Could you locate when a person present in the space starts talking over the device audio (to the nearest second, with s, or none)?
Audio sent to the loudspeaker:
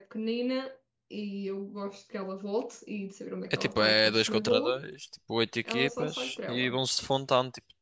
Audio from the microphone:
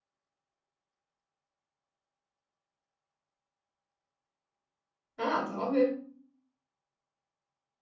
5 s